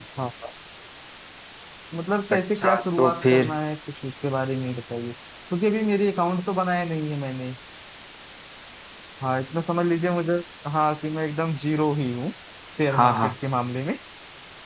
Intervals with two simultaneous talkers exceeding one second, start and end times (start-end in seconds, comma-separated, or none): 2.3-3.5